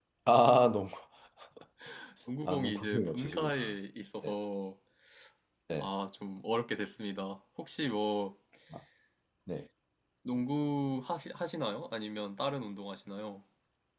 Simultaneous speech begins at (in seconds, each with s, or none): 2.5 s